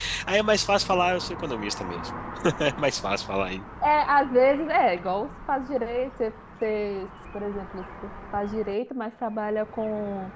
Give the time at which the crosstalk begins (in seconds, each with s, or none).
none